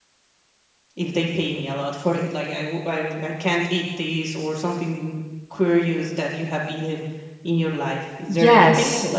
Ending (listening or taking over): taking over